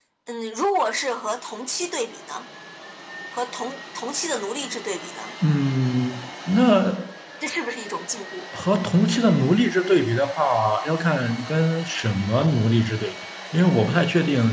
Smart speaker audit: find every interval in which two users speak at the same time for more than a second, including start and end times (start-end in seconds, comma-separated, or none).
none